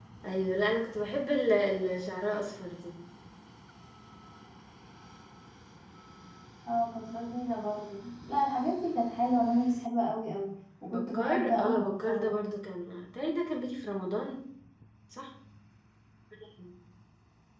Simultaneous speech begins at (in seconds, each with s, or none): 10.8 s